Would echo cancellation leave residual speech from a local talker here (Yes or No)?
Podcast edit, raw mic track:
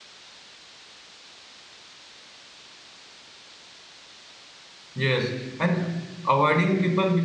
Yes